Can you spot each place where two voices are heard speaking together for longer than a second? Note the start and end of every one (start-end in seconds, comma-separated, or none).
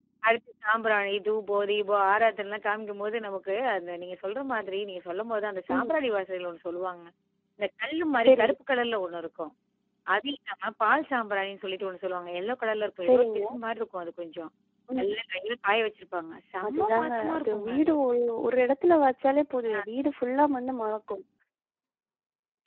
16.7-17.9